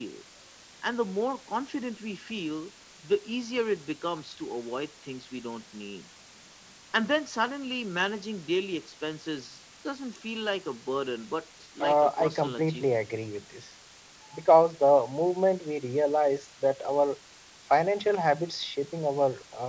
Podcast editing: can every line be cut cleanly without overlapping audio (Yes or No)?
No